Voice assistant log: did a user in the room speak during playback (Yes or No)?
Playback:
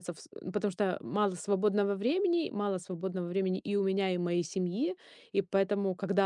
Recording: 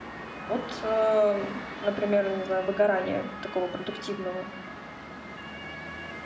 Yes